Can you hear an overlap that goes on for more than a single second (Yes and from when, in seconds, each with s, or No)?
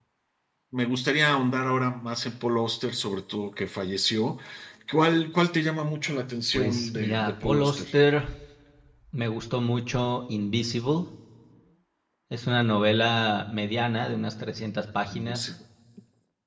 Yes, from 6.5 s